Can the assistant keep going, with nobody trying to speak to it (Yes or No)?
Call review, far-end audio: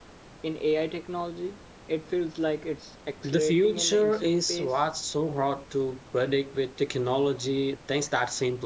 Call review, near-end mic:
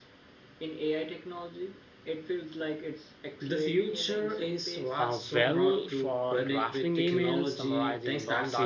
No